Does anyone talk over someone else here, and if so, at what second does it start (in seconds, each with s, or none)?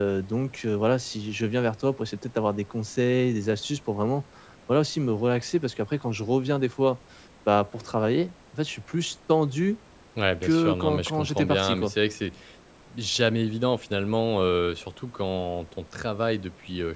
10.4 s